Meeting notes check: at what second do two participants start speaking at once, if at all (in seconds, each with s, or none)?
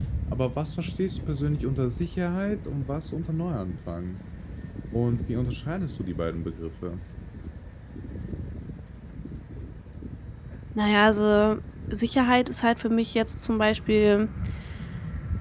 none